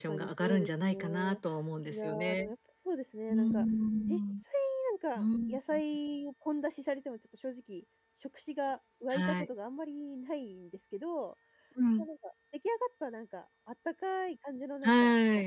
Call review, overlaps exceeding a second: present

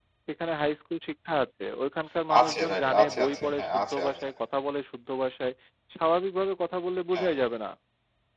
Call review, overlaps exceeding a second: present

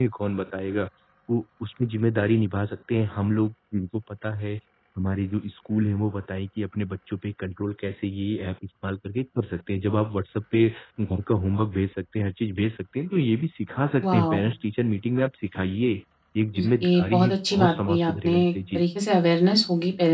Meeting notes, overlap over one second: present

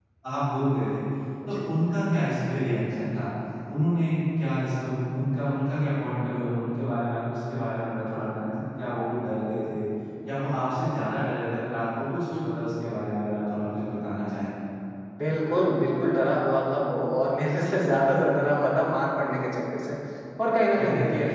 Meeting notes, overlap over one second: none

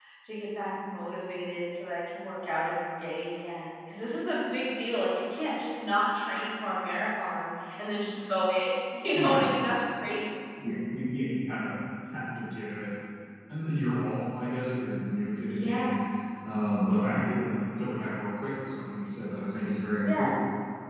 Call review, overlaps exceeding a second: none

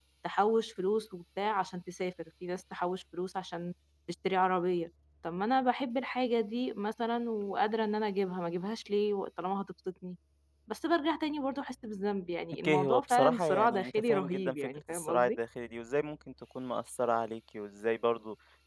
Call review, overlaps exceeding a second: present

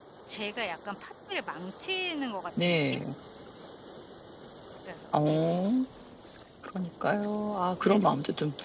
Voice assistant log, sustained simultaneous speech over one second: none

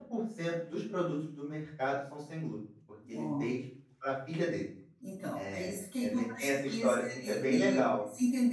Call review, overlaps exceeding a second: present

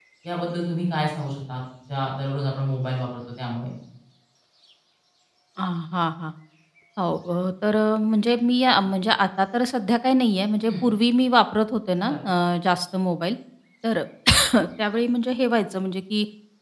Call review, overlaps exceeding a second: none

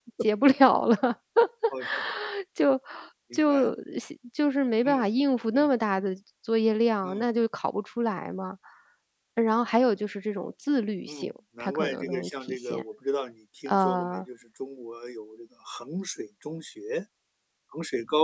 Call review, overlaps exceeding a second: present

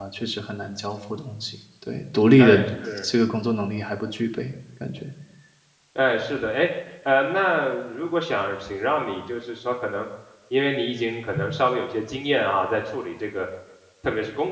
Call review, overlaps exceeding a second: none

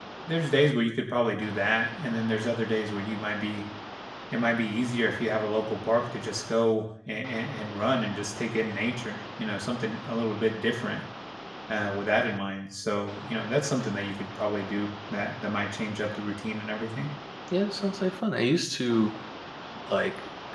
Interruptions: none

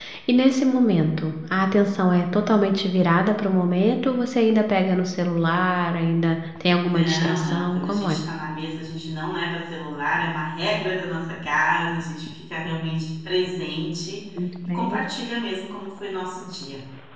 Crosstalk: present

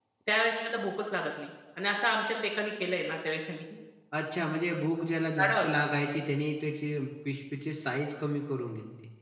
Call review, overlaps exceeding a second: none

